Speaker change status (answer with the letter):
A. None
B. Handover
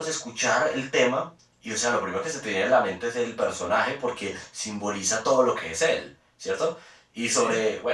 A